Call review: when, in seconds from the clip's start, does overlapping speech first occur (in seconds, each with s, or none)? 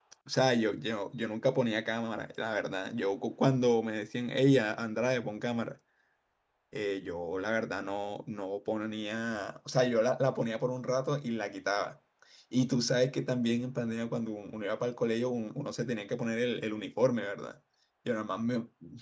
none